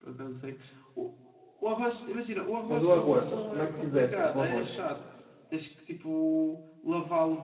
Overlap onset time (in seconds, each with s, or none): 2.7 s